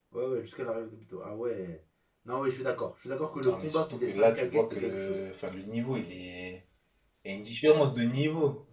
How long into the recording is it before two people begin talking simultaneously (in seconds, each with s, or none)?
3.4 s